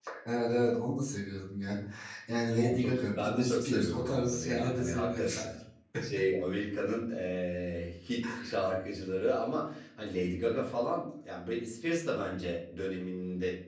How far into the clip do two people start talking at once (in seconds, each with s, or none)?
2.6 s